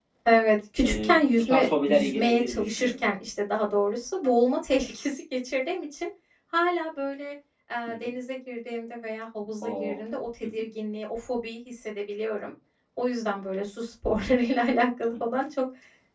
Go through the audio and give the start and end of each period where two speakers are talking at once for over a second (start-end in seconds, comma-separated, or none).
0.8-3.0